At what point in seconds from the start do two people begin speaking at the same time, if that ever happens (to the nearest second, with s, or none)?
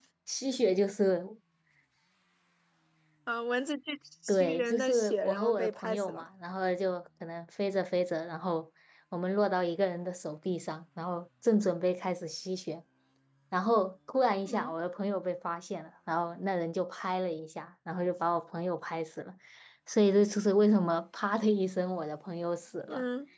4 s